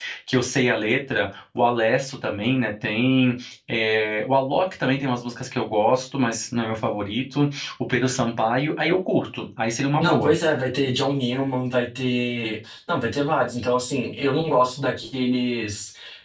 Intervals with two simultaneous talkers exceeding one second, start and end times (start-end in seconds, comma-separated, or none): none